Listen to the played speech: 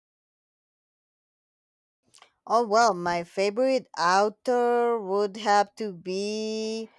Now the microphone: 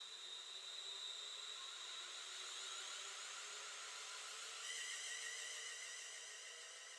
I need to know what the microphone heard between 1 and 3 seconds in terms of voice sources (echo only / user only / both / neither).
neither